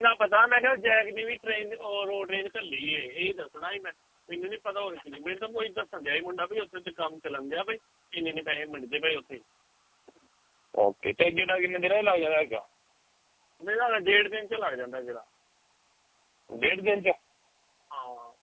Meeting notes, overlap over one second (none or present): none